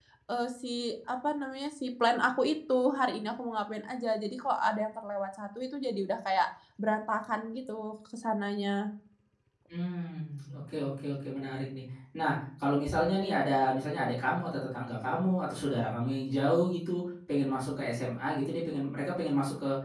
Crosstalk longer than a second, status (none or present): none